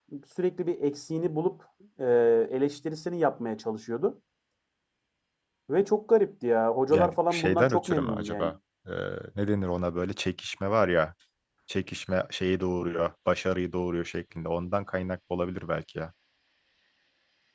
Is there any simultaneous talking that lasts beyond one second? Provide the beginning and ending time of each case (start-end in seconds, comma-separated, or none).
6.9-8.5